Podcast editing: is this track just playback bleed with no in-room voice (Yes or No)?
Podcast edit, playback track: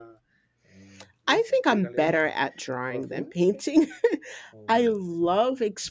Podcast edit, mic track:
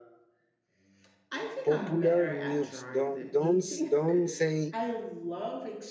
No